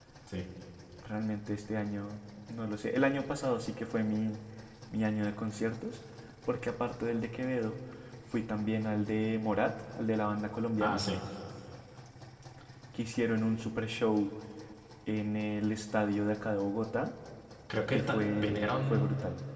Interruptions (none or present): present